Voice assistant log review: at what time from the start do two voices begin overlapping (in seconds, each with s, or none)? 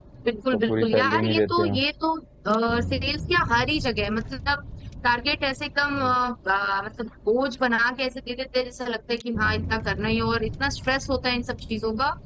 0.5 s